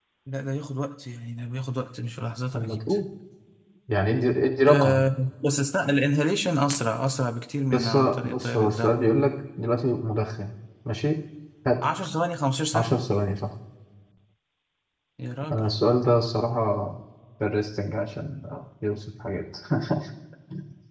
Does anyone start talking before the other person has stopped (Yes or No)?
Yes